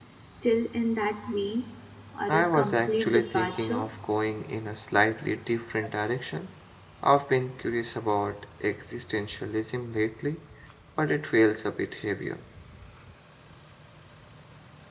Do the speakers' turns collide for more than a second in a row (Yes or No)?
Yes